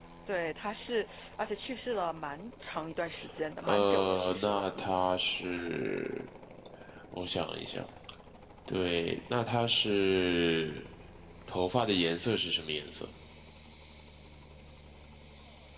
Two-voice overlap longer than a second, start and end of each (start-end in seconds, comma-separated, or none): 3.7-5.0